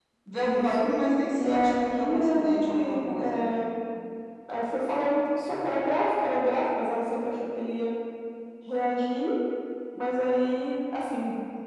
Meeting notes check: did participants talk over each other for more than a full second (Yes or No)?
Yes